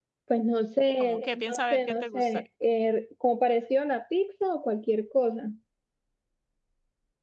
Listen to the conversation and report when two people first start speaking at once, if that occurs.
1.0 s

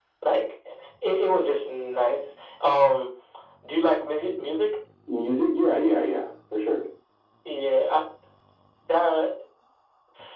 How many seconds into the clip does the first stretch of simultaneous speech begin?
none

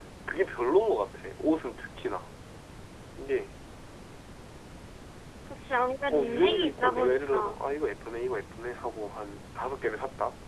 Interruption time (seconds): 6.1 s

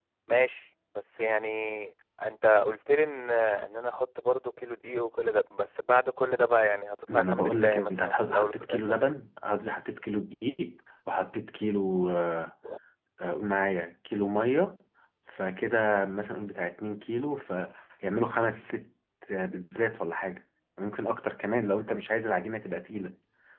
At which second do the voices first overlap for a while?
7.1 s

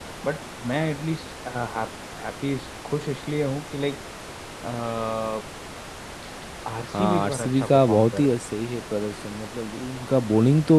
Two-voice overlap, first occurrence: 6.9 s

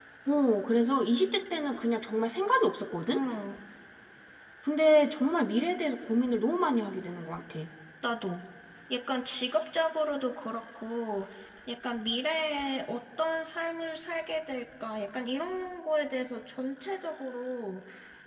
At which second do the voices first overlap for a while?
none

